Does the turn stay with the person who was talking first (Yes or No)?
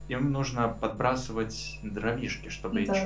Yes